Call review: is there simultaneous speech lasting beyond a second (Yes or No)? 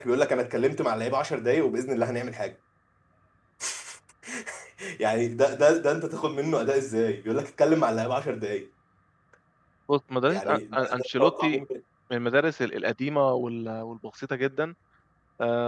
Yes